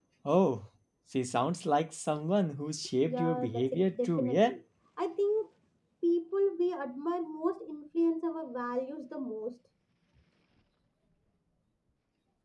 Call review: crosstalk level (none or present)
present